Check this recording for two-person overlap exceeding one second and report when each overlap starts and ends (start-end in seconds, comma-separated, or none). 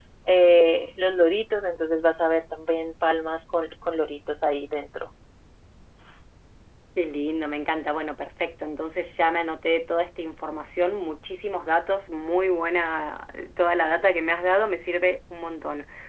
none